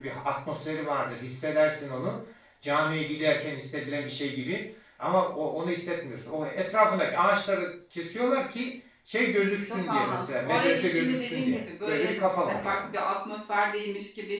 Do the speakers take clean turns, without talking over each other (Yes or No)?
No